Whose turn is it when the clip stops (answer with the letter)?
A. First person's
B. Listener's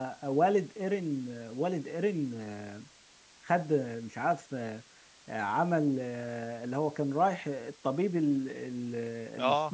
B